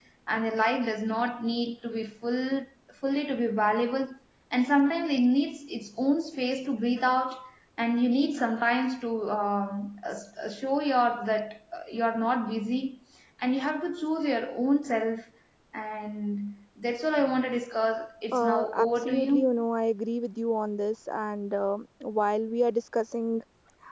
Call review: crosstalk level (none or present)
present